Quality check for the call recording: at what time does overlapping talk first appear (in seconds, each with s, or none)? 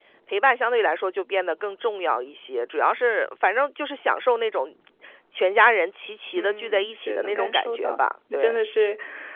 6.4 s